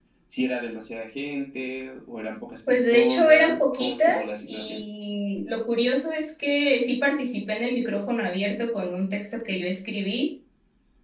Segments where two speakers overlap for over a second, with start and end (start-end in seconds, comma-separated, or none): 2.7-4.8